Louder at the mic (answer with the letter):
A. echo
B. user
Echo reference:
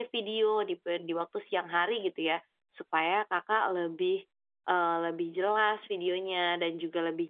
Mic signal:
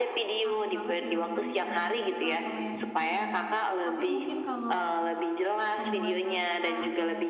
A